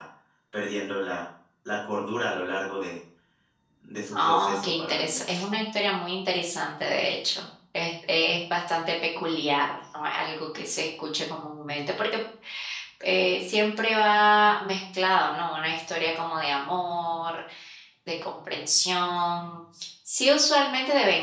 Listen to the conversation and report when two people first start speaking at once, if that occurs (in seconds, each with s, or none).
4.1 s